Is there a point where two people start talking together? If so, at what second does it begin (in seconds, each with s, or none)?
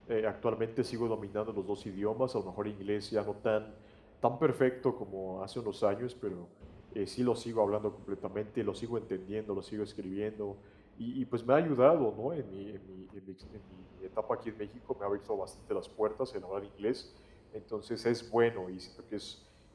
none